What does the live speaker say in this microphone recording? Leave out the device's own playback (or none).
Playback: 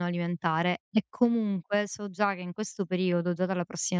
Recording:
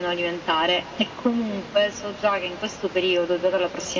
none